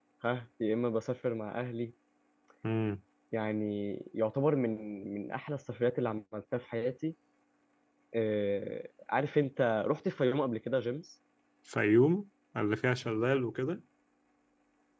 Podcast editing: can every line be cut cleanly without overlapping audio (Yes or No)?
Yes